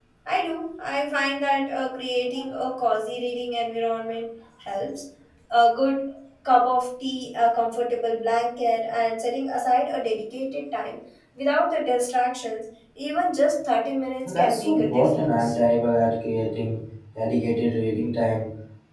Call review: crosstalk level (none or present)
present